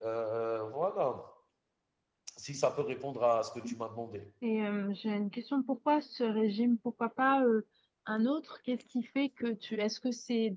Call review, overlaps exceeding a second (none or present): none